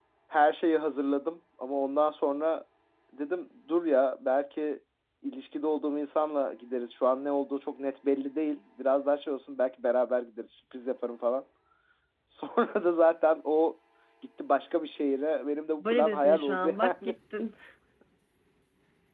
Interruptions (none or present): present